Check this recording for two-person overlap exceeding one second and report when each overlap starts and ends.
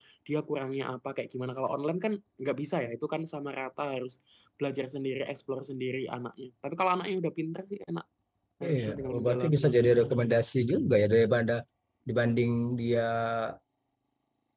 8.6-10.1

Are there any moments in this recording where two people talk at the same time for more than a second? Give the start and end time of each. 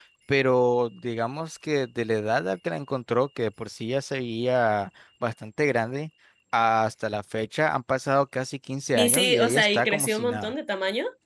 8.9-10.5

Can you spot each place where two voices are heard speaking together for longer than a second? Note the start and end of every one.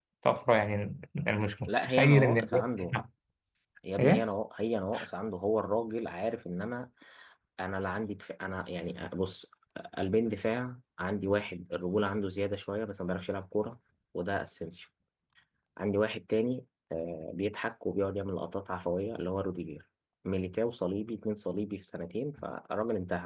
1.7-3.0

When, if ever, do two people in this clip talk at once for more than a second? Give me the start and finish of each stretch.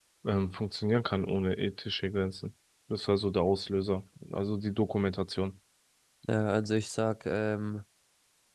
none

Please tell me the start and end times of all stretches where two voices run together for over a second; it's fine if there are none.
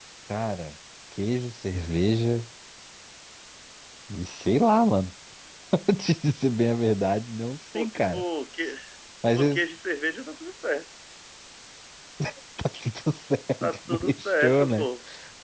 13.6-14.9

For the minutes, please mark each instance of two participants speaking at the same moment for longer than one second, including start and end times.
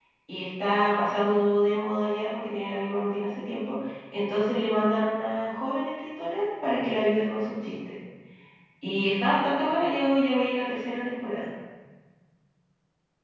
none

